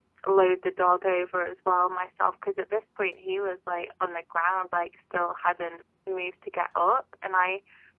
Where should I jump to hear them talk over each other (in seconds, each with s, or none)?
none